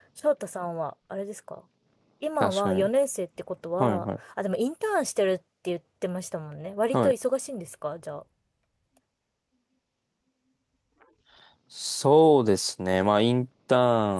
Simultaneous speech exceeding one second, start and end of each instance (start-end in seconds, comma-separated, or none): none